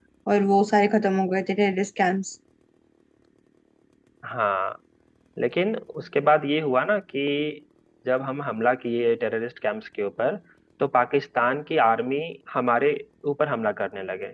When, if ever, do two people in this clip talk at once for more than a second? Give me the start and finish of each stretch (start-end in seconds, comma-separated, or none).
none